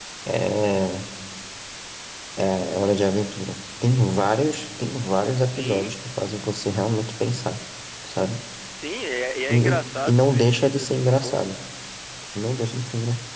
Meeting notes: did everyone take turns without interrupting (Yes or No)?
No